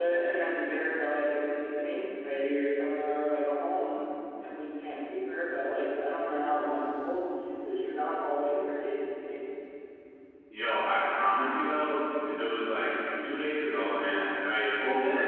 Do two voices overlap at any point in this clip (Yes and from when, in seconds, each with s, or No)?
No